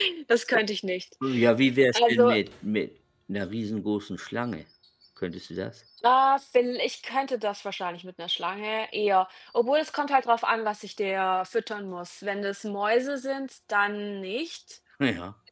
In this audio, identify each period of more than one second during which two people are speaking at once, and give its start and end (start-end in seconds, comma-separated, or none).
none